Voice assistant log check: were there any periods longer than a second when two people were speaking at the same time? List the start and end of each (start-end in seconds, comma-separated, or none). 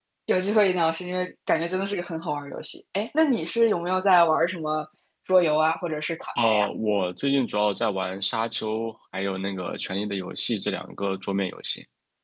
none